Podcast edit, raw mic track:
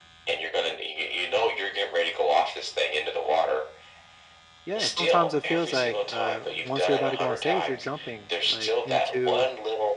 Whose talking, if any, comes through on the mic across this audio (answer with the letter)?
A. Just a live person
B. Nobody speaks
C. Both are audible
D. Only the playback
C